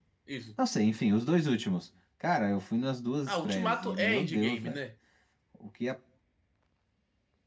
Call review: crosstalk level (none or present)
present